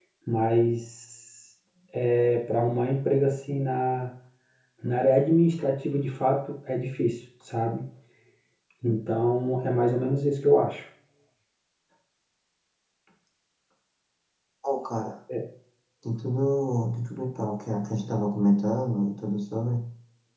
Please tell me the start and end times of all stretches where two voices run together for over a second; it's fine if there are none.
none

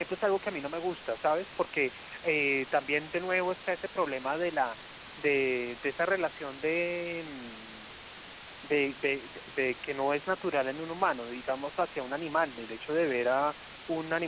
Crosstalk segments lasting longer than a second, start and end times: none

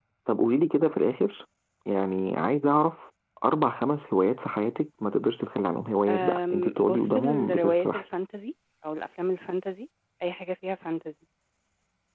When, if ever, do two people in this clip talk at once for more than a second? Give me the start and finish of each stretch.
6.1-8.0

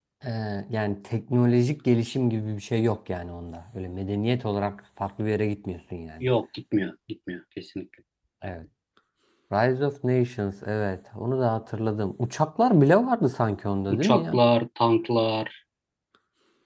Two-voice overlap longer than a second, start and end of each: none

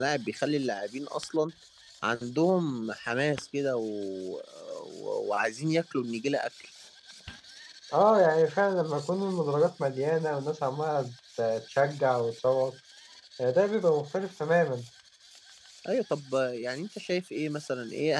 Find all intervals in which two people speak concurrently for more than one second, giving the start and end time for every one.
none

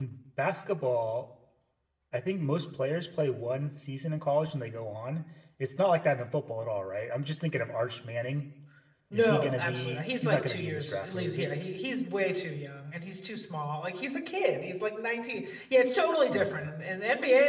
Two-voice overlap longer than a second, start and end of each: 9.1-11.5

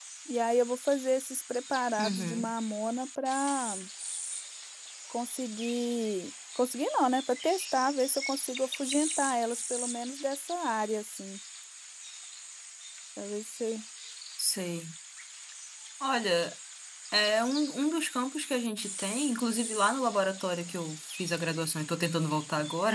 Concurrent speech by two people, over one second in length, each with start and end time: none

